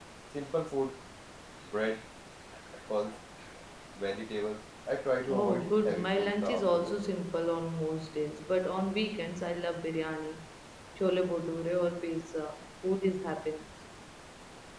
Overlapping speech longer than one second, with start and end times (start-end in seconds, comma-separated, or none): 5.3-7.0